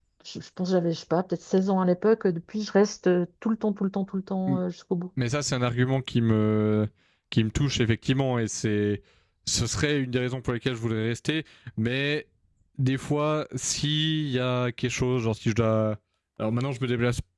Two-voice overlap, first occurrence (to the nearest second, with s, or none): none